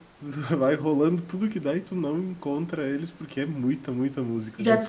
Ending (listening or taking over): taking over